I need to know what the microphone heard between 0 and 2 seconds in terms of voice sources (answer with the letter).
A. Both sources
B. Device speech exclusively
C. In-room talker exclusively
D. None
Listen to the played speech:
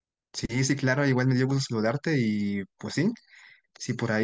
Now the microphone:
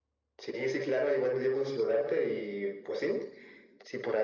B